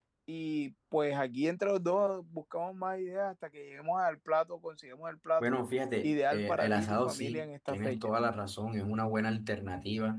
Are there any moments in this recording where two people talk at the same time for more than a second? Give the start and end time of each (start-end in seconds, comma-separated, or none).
6.0-8.1